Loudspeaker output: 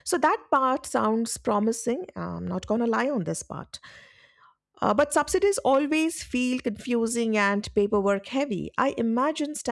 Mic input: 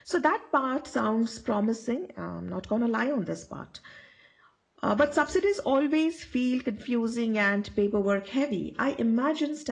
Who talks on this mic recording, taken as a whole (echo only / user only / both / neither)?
echo only